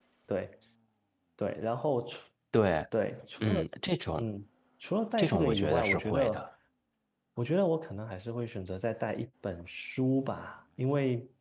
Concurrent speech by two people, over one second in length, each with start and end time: 5.2-6.5

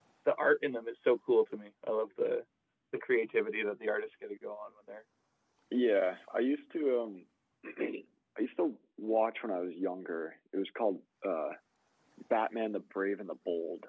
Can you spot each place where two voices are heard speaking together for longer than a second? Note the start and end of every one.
none

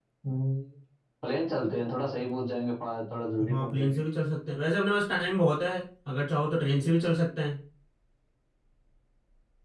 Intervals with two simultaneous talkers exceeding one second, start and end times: none

